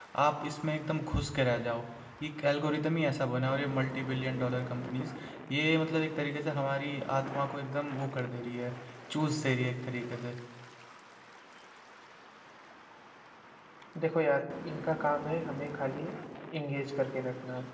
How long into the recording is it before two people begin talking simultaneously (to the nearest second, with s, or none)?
none